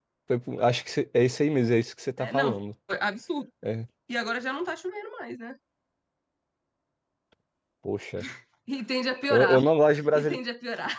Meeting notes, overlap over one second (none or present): none